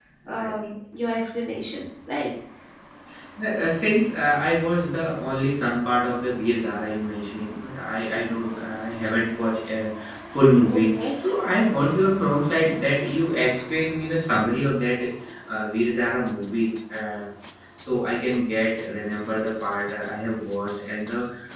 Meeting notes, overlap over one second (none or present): none